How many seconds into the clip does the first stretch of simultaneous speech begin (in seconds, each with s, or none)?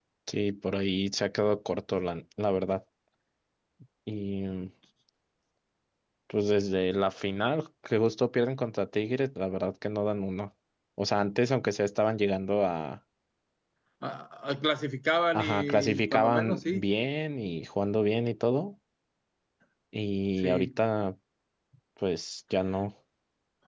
15.3 s